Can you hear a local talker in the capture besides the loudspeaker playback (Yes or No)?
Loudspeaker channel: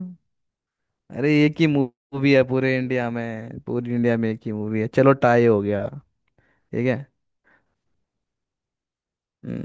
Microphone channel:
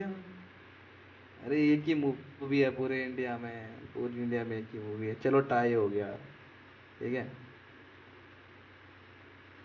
No